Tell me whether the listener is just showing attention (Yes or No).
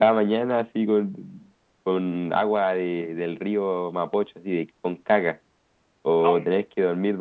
Yes